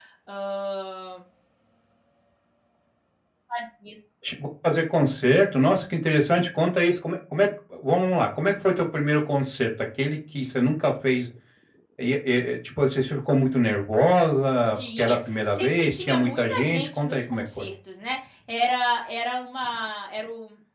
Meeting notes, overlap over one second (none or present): present